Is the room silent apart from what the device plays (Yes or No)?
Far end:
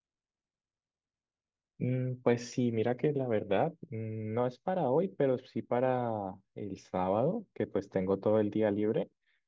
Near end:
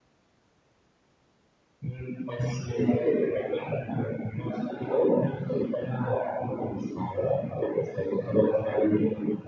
Yes